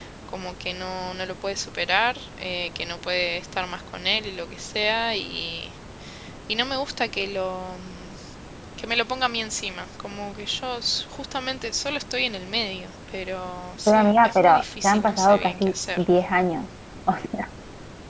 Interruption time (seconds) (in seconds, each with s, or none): 13.9 s